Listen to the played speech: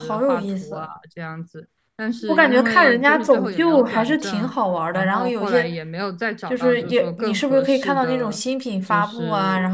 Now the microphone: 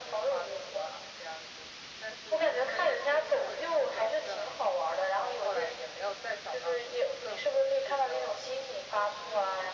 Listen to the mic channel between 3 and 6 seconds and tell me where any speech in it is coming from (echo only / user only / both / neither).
echo only